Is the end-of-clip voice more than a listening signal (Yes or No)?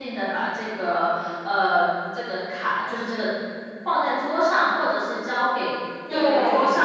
No